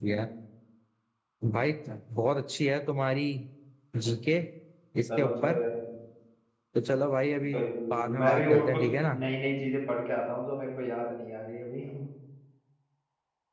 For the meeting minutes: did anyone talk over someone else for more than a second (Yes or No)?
Yes